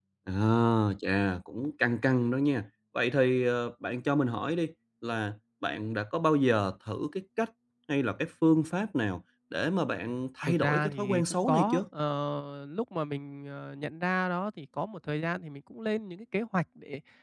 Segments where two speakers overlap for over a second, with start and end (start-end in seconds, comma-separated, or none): 10.5-11.8